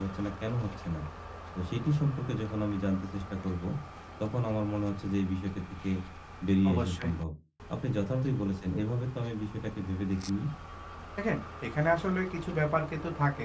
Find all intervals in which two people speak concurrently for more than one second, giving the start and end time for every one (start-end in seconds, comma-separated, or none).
none